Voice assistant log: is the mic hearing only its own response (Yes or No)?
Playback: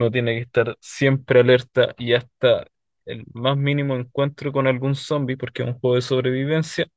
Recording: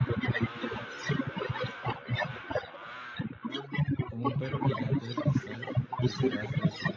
No